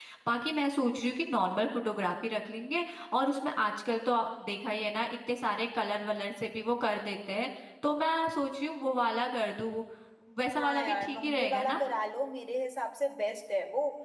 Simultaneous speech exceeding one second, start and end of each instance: 10.6-11.8

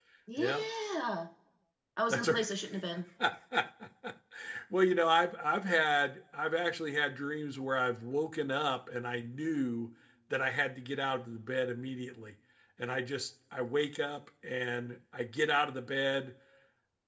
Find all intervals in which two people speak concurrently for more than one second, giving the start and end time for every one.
none

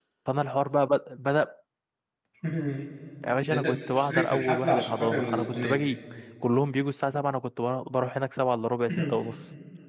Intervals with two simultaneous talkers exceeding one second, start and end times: 3.5-5.9

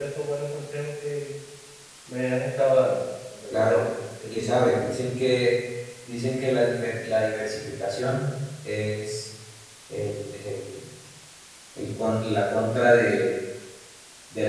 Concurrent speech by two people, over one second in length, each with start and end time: none

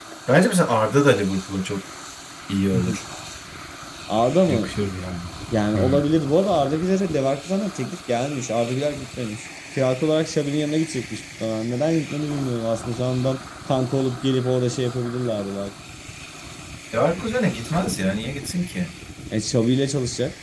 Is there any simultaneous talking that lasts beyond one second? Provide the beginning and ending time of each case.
none

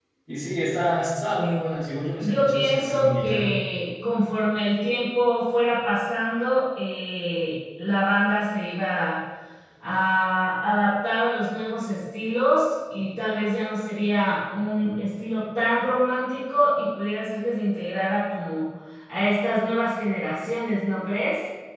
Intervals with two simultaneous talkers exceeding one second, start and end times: 2.2-3.5

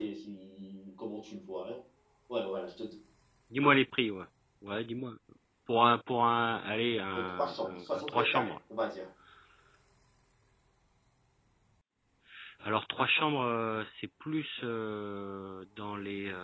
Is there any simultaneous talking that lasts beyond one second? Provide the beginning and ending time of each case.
7.2-8.5

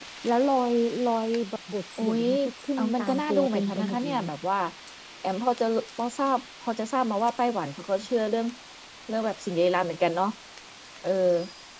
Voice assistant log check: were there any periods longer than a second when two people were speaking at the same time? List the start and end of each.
2.8-4.2

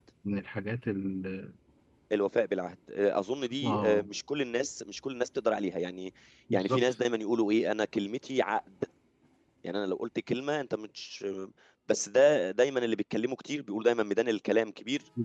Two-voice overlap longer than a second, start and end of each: none

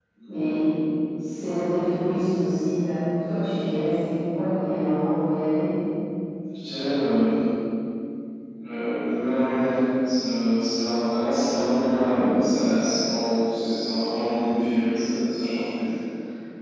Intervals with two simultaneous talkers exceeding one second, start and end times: none

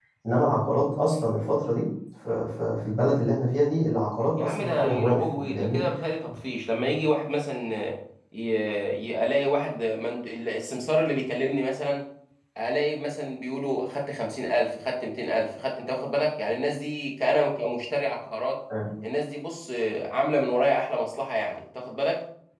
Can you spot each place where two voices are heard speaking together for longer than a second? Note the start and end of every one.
4.4-5.8

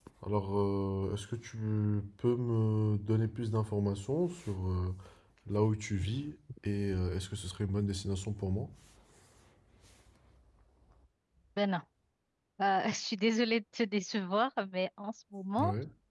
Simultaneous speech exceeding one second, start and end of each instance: none

